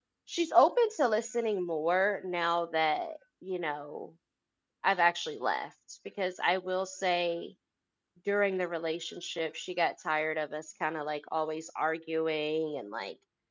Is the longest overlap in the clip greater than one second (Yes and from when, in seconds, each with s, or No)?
No